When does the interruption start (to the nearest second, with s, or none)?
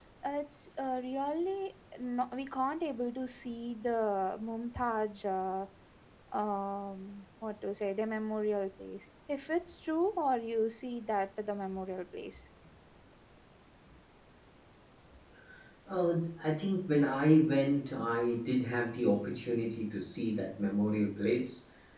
none